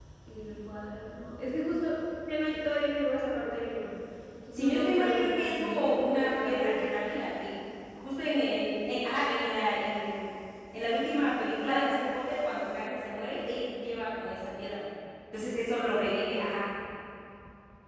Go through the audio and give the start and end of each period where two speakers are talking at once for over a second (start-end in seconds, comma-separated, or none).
4.5-7.2